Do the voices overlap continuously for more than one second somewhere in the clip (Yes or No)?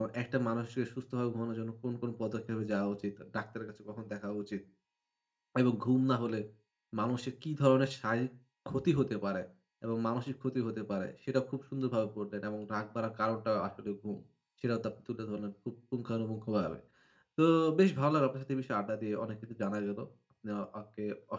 No